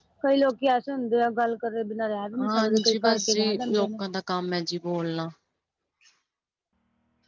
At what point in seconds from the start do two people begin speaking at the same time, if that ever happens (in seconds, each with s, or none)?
2.3 s